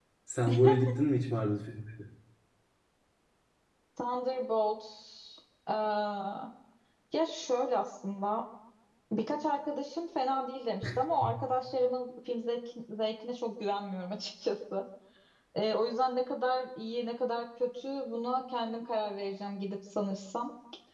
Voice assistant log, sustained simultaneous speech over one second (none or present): none